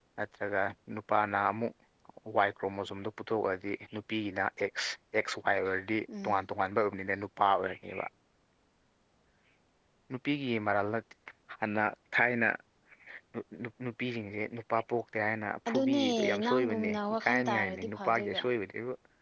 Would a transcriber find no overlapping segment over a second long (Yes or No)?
No